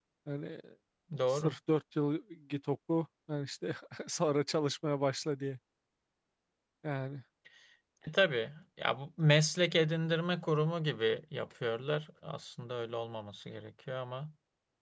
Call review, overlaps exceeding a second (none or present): none